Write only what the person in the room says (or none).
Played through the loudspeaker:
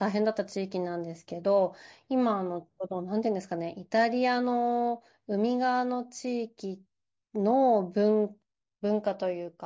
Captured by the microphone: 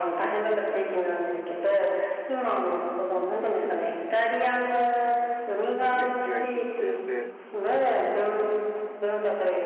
ね、違いすぎて、で、